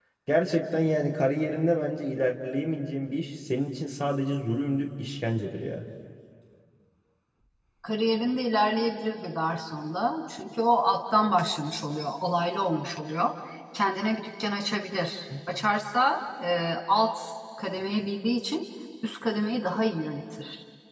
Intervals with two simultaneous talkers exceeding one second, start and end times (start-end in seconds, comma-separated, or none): none